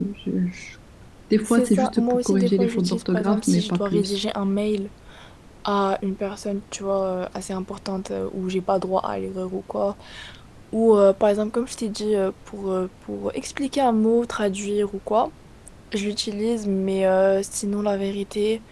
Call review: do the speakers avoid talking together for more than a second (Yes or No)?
No